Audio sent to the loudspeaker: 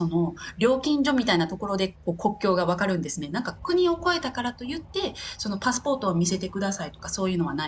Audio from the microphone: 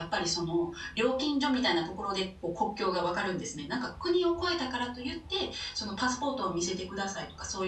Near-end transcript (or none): none